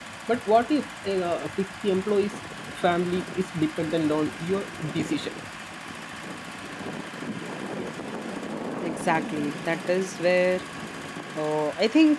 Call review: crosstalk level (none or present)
none